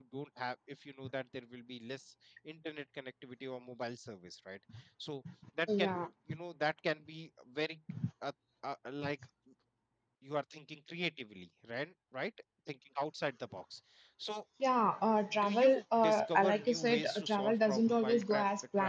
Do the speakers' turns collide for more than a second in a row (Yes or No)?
Yes